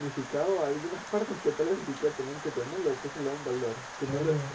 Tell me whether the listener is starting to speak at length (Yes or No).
No